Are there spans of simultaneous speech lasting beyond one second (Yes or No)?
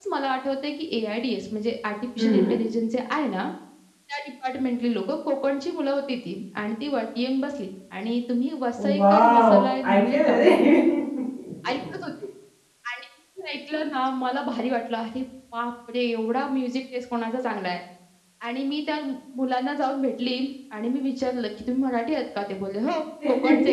Yes